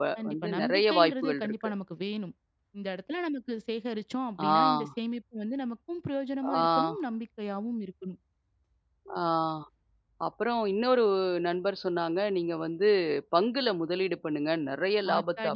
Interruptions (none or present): present